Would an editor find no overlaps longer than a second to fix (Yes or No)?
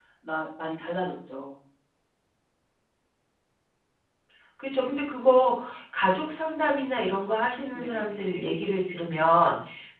Yes